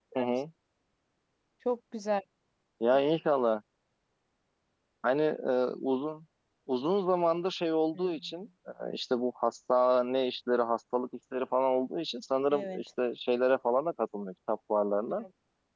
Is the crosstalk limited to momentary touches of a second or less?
Yes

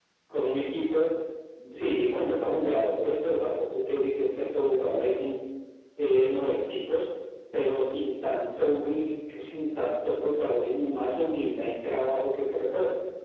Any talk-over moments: No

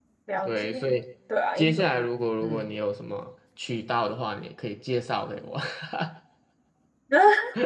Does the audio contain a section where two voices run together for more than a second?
No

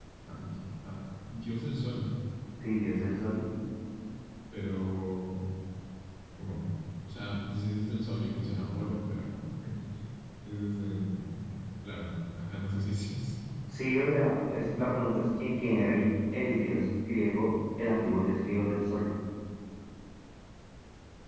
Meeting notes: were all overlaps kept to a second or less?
Yes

